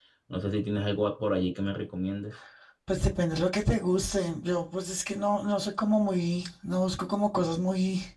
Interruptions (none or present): none